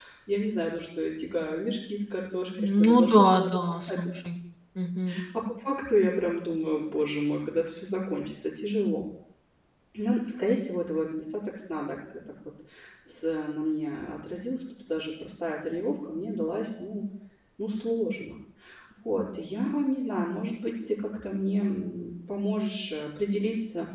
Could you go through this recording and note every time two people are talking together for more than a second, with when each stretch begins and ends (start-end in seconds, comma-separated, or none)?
2.6-4.1